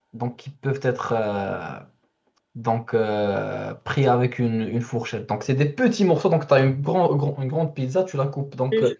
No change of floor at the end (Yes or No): Yes